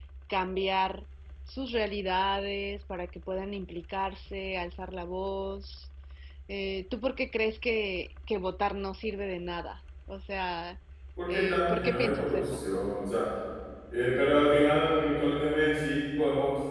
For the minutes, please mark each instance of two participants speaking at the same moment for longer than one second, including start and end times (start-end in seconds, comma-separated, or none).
11.3-12.6